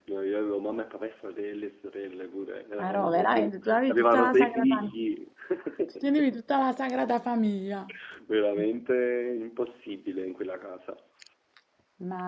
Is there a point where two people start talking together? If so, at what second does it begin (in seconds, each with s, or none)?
2.8 s